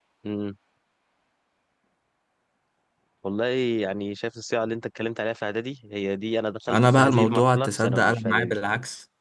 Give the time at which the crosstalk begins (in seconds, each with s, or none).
6.7 s